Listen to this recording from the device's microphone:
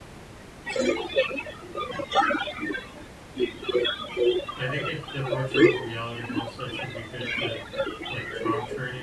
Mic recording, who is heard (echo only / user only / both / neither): both